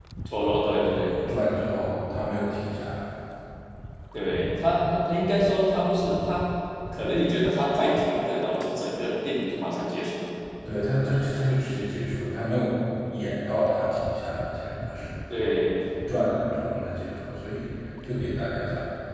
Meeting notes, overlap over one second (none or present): none